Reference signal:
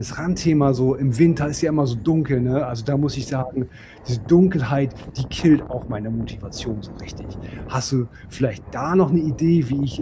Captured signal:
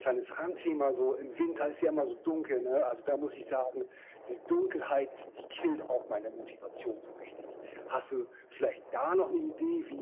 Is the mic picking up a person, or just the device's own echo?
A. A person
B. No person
B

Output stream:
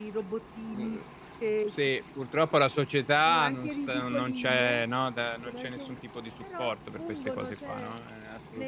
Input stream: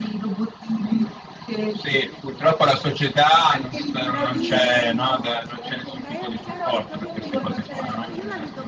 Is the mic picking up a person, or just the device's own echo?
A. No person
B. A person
B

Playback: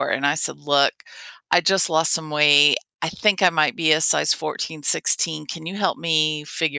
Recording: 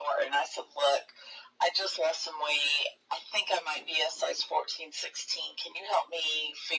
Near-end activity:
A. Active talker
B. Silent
B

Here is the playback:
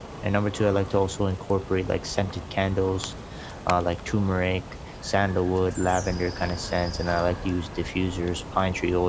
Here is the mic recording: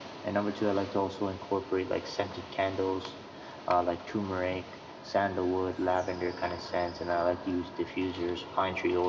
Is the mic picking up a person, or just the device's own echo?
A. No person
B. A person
A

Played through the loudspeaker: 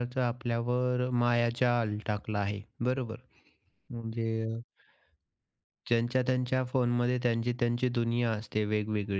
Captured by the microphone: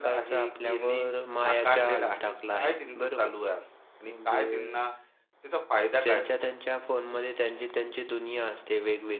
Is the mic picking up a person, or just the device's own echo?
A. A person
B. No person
A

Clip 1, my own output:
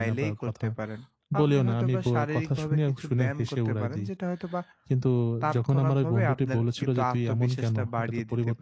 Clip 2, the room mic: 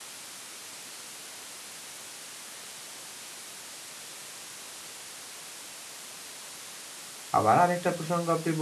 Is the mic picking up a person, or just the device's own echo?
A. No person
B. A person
B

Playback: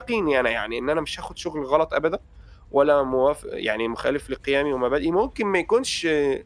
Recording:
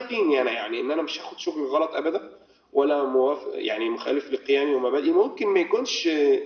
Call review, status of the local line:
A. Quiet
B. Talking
A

